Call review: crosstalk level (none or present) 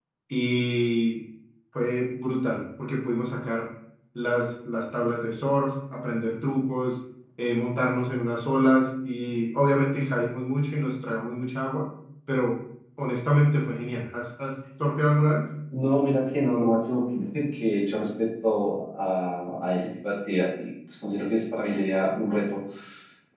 none